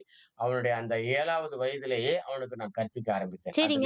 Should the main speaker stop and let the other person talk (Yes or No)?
Yes